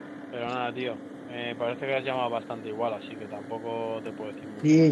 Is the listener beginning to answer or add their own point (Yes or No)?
Yes